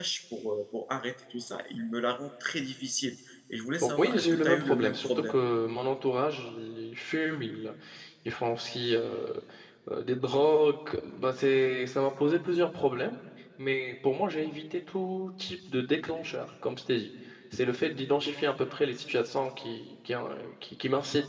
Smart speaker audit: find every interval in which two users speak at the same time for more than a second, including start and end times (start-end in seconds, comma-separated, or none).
4.0-5.4